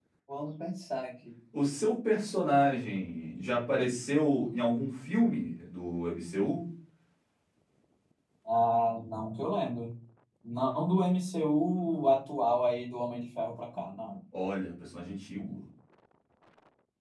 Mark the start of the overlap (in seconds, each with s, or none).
none